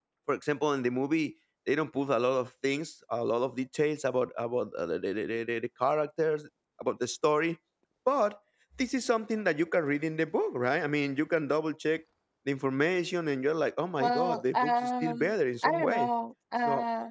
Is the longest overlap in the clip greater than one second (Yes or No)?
Yes